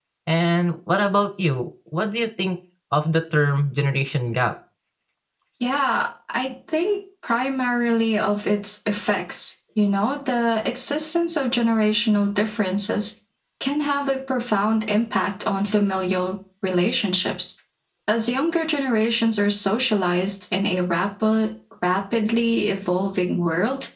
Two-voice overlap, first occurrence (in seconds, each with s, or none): none